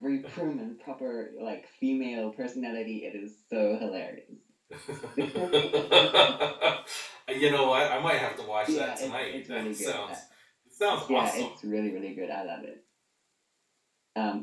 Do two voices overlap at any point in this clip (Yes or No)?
Yes